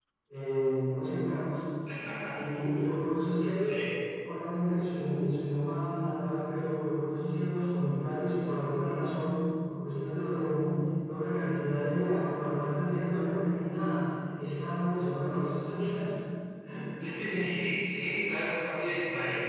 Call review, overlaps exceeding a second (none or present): none